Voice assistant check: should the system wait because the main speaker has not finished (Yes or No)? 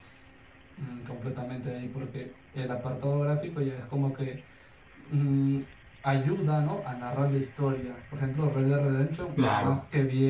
Yes